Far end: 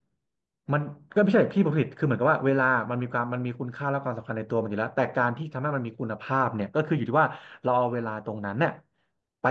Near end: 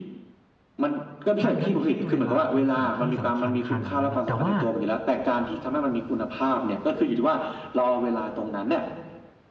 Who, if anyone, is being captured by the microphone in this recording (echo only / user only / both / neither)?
both